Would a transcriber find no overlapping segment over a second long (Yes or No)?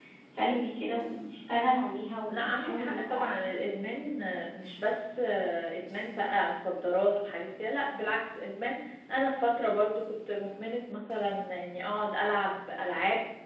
No